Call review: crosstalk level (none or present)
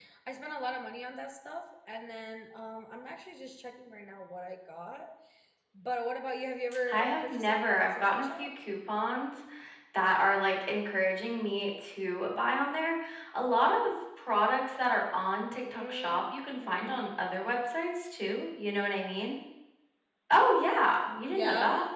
present